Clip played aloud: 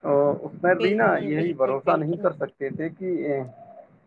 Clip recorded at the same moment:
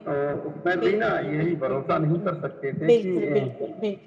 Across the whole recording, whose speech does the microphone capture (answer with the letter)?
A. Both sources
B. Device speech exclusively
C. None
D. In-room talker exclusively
A